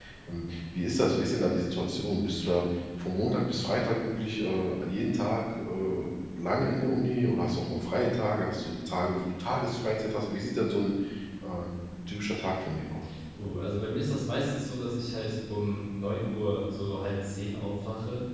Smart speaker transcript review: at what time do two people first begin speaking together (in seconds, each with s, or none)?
none